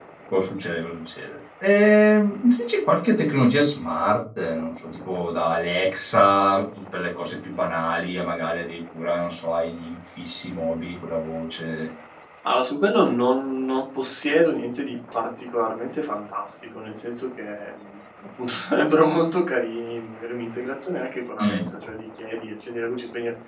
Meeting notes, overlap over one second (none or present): none